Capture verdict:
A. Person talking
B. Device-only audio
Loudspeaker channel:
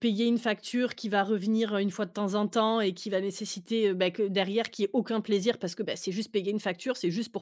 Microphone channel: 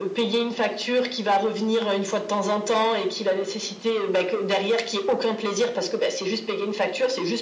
B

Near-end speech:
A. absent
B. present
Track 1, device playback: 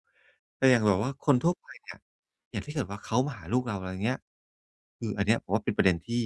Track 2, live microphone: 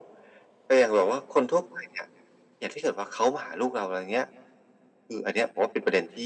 A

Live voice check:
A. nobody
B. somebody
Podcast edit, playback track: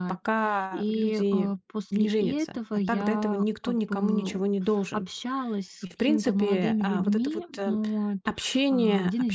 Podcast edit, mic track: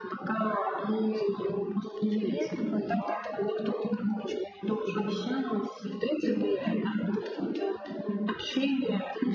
A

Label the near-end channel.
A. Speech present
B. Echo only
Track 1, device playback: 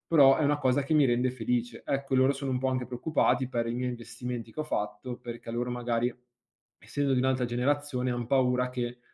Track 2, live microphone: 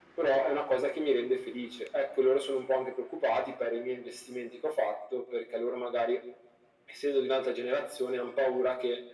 B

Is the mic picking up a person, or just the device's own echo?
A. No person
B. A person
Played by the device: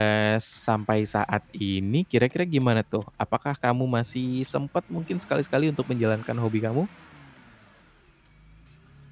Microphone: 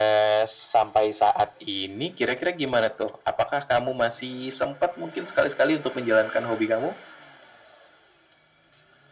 A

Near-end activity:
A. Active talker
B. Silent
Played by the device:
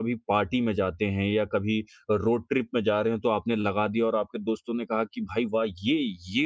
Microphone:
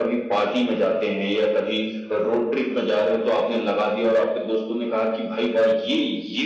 B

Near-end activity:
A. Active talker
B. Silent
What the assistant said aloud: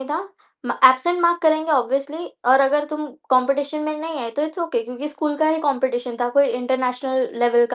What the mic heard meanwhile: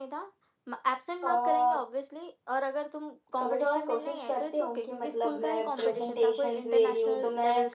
A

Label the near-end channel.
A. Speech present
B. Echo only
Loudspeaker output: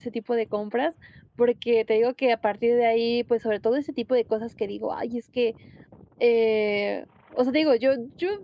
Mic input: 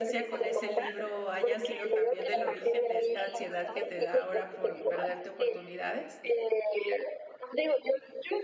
A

